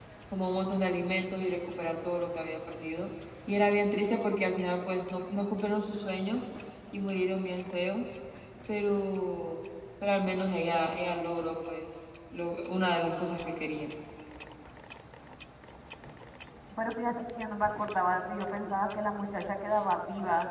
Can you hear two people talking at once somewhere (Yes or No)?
No